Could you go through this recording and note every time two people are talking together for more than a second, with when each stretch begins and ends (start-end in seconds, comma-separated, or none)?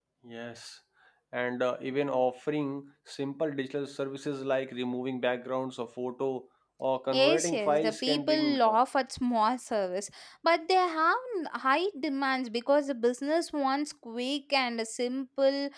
7.1-8.8